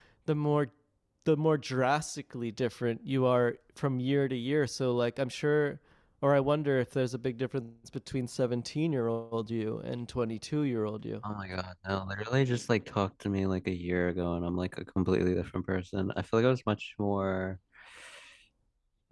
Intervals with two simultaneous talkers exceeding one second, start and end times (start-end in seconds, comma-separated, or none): none